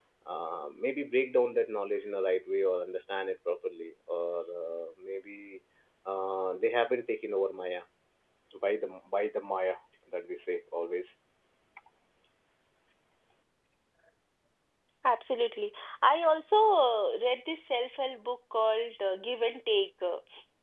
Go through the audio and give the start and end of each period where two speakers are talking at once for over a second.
none

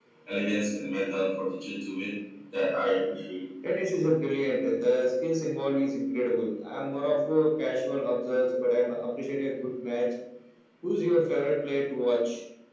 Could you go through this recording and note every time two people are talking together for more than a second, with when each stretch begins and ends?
none

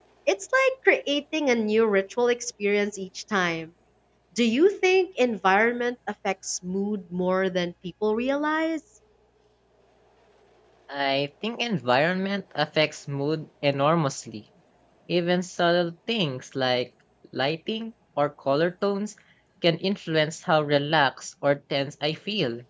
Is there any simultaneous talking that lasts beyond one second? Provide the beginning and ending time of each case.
none

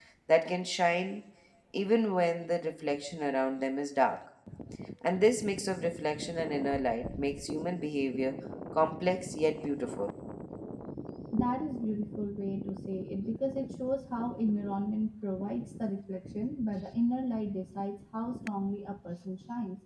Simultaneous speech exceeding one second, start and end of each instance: none

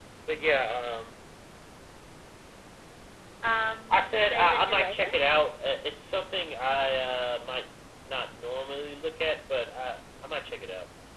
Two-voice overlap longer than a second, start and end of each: 3.9-5.1

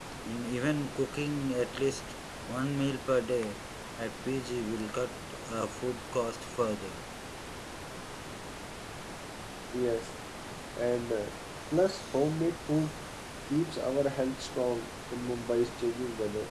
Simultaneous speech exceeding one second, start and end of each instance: none

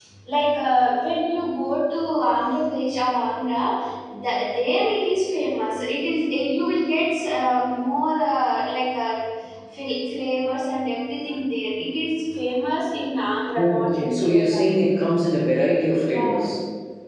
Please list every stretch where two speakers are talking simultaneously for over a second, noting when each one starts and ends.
13.6-14.8

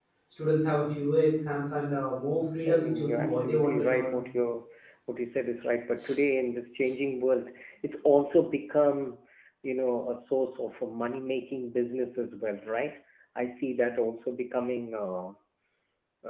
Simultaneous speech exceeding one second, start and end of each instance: 2.7-4.2

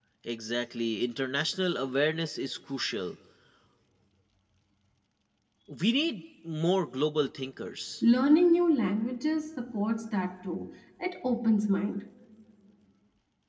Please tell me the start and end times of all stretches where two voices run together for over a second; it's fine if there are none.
none

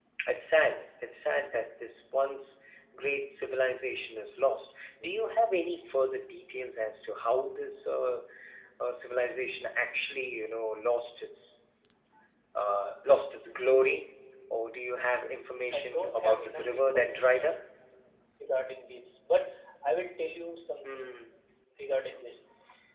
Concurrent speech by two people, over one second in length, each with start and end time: 15.7-17.5

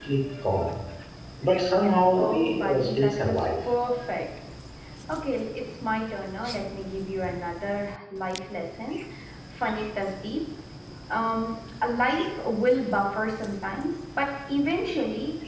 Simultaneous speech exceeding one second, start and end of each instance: 2.2-3.5

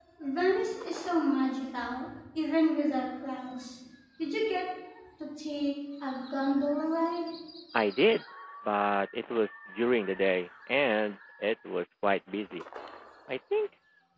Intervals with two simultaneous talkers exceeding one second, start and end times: none

